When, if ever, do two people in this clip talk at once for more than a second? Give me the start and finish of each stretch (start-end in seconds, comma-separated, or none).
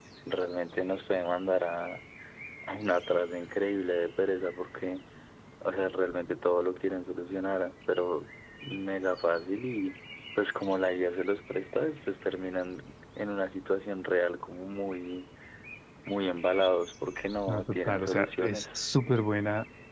17.5-18.8